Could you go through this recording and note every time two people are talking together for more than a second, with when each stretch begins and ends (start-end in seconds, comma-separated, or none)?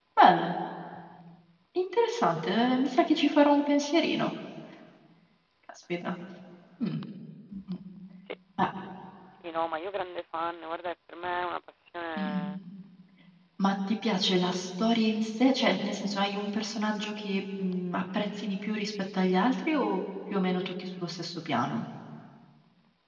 none